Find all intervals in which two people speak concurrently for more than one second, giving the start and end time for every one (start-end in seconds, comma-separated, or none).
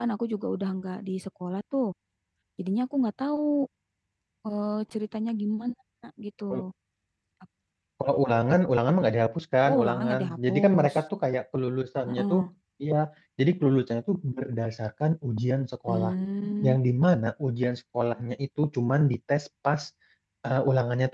9.7-10.9